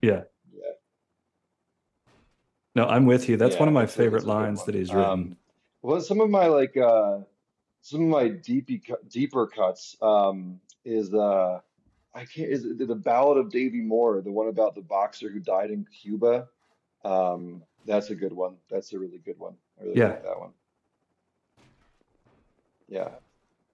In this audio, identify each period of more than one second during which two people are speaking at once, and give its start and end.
3.4-5.3

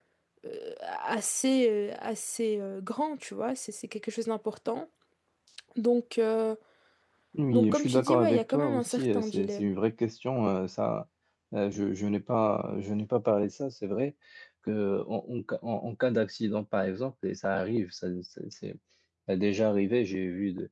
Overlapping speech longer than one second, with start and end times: 7.5-9.7

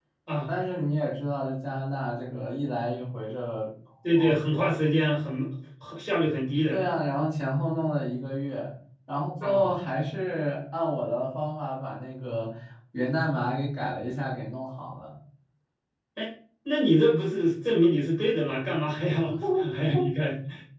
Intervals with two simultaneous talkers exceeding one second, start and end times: none

